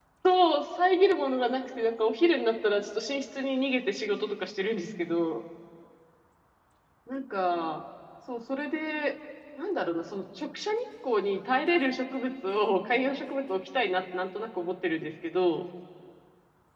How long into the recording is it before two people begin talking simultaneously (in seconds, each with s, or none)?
none